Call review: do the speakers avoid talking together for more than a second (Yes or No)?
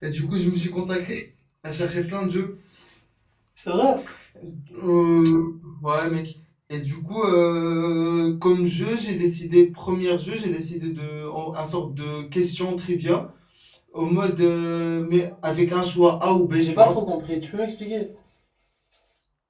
Yes